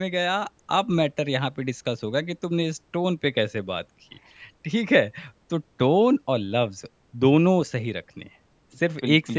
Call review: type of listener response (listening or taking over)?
taking over